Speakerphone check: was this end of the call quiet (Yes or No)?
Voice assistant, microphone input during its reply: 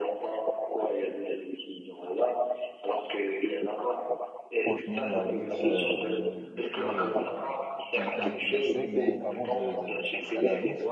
No